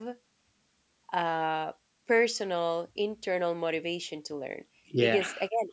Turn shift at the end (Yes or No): No